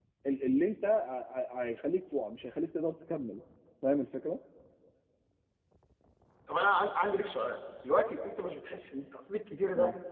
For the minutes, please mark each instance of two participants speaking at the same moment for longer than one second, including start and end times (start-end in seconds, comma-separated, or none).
none